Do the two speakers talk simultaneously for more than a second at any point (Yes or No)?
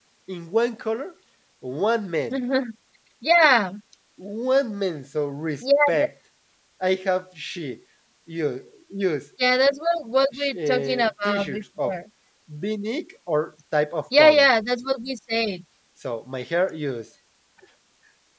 Yes